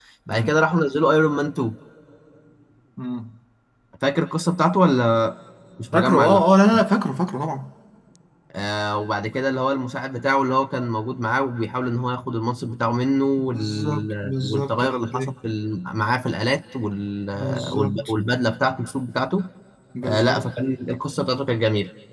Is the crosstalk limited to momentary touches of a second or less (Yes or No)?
No